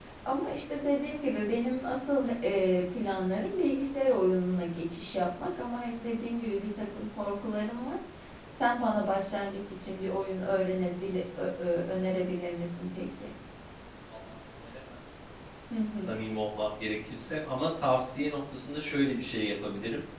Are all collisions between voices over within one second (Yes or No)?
Yes